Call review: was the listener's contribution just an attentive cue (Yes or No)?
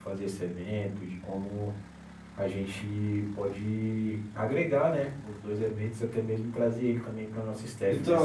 No